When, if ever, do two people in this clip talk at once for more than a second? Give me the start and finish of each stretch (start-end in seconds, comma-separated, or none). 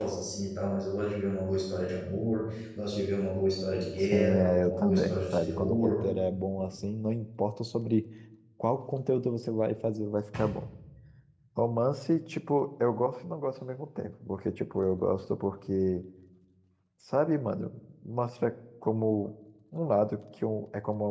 4.0-6.0